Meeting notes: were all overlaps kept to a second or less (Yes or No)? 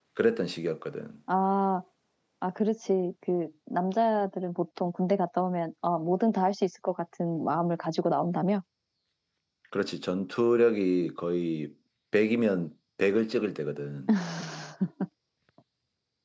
Yes